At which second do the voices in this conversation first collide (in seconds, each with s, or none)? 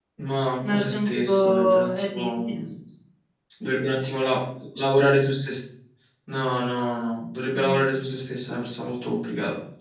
0.7 s